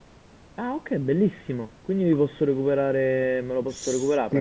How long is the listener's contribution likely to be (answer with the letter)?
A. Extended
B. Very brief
A